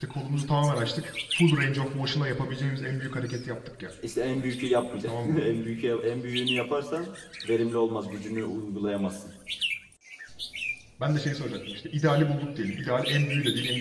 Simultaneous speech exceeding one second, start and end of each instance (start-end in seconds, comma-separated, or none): none